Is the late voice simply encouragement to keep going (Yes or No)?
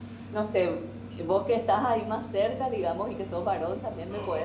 Yes